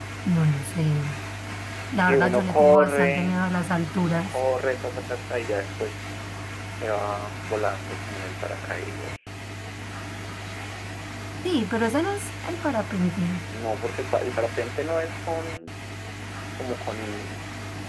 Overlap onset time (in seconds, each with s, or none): 2.0 s